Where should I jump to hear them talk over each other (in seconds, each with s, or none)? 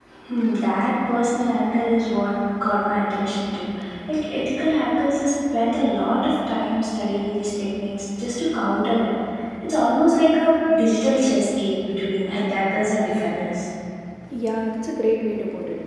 none